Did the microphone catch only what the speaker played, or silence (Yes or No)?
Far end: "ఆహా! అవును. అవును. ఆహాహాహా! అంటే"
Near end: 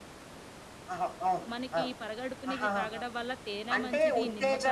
No